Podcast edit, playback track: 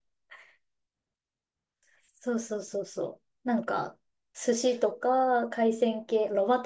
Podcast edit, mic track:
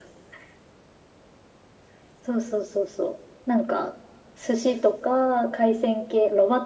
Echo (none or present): present